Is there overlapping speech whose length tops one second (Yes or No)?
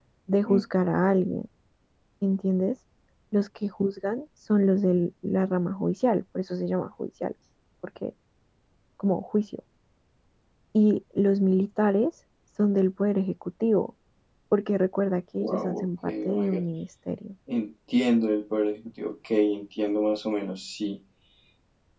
Yes